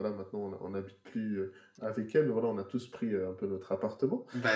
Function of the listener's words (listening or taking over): listening